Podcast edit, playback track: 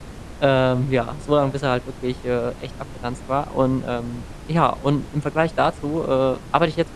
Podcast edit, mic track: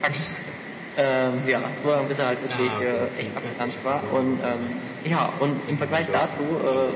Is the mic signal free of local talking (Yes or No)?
No